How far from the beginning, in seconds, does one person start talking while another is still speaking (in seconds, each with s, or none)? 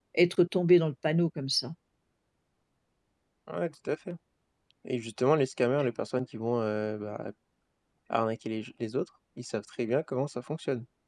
none